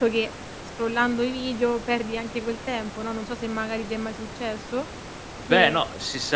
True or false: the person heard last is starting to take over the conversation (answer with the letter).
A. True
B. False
A